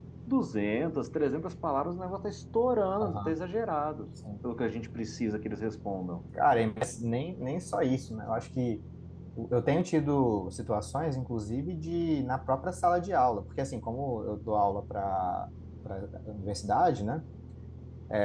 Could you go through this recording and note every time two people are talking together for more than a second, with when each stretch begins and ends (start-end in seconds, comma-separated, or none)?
none